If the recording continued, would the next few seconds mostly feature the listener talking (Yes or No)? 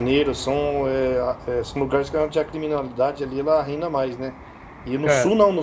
No